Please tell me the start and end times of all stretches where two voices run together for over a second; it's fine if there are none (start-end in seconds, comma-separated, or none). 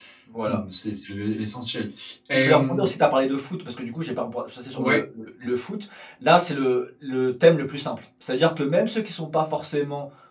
none